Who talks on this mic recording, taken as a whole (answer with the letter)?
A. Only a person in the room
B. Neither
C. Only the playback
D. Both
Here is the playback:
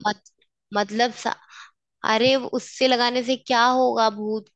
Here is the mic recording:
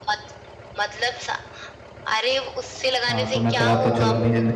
D